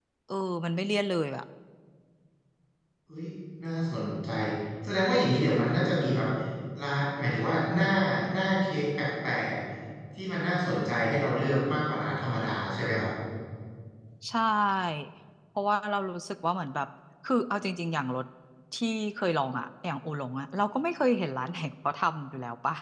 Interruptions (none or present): none